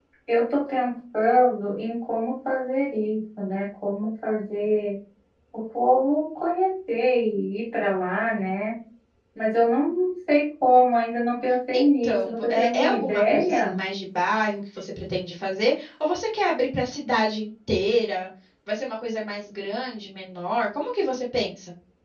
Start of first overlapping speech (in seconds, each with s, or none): 11.7 s